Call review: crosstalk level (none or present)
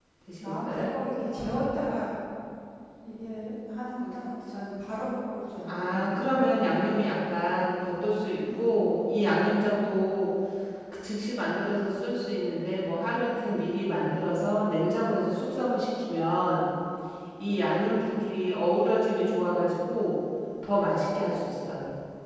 present